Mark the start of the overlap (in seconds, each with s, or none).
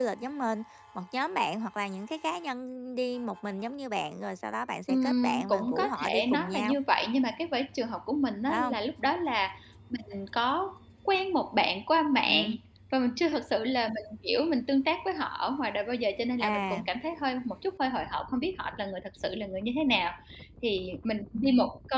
4.9 s